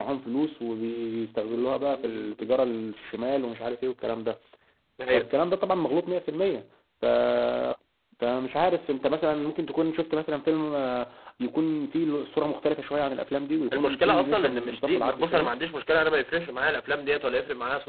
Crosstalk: present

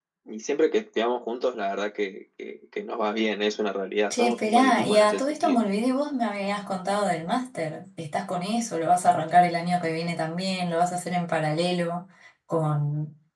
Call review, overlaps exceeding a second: present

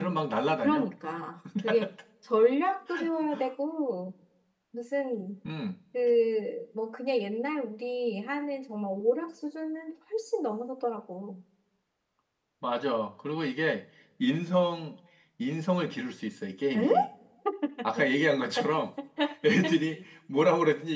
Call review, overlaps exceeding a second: none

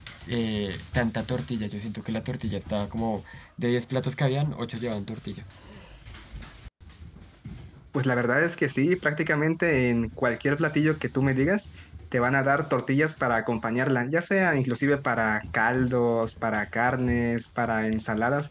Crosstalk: none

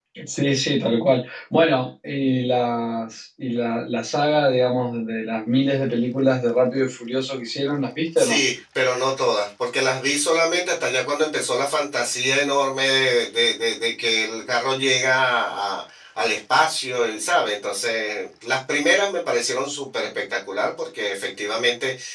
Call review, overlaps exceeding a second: none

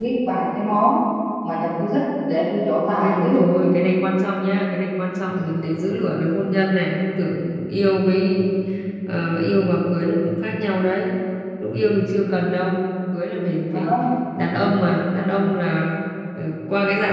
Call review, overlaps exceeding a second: none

